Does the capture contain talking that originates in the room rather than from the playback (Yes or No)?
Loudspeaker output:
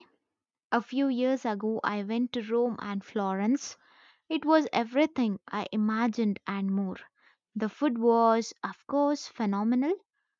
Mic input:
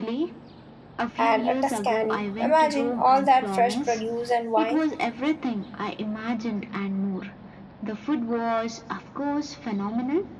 Yes